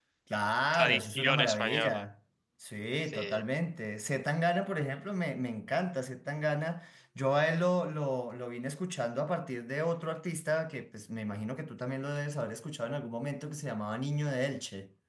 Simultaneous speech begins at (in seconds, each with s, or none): 0.7 s